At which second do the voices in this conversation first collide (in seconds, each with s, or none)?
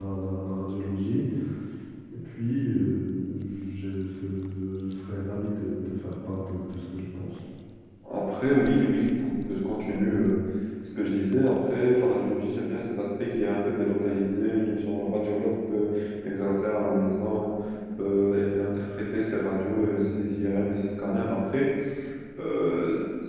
none